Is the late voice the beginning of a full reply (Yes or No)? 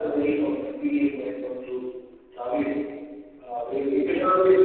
No